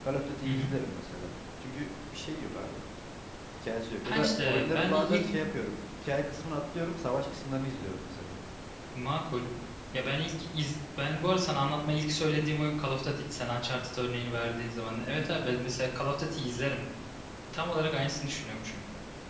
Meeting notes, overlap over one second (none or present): present